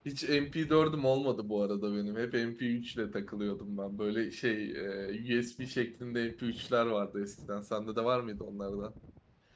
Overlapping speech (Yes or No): No